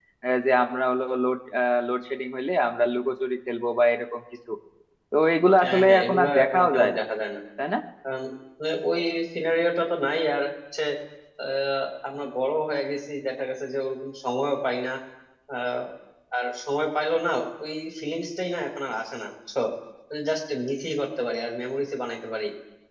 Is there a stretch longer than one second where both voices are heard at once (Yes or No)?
Yes